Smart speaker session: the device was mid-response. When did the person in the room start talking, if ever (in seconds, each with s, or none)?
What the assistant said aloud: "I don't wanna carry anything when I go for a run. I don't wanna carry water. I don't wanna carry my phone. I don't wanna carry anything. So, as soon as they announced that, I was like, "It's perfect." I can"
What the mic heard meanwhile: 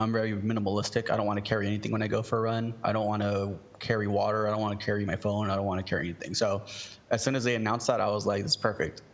none